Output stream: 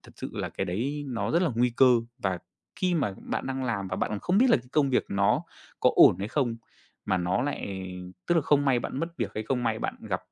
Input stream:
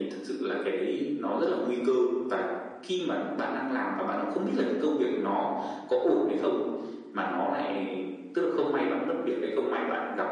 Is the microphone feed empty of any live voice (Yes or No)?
Yes